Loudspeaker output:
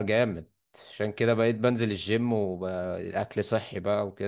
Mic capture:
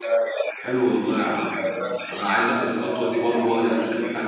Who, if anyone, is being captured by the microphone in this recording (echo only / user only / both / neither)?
both